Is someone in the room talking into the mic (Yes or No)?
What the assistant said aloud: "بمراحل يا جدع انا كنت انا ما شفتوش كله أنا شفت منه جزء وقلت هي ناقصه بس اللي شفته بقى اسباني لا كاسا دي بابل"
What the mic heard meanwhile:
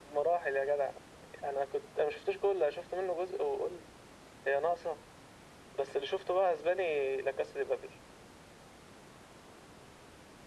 No